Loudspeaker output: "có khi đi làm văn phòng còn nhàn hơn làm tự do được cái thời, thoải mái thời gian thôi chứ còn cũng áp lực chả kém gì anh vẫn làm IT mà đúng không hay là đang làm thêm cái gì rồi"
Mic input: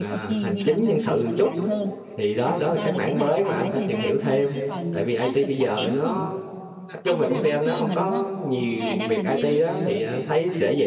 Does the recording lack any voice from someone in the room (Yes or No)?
No